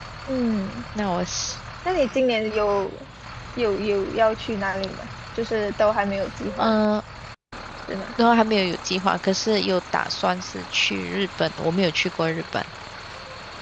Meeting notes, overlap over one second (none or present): none